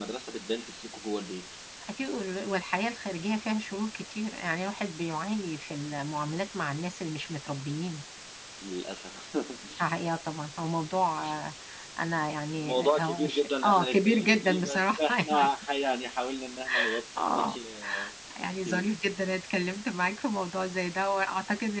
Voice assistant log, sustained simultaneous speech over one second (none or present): present